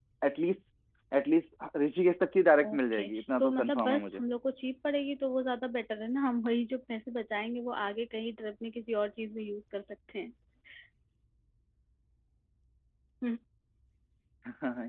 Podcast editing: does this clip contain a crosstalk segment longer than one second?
Yes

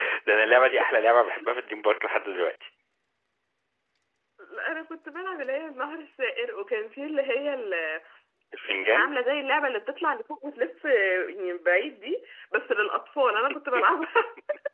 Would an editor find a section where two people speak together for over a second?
No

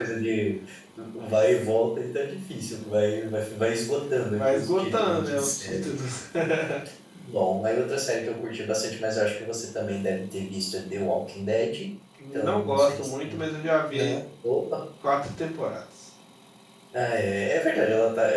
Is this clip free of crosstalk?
No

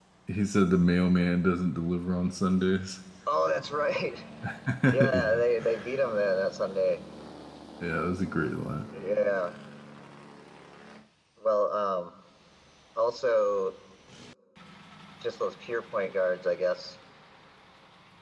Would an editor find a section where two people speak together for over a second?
No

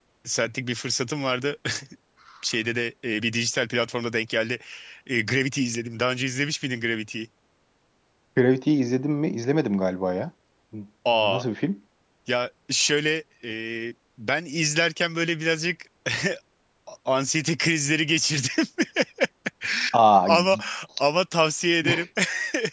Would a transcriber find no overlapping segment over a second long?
Yes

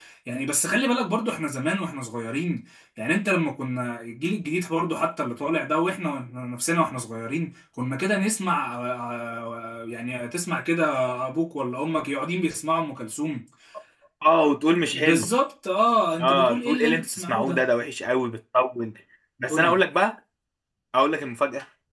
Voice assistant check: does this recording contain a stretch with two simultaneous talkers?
Yes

